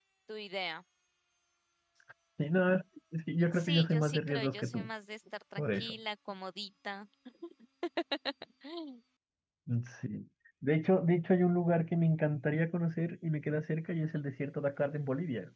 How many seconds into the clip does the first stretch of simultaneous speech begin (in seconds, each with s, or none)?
3.5 s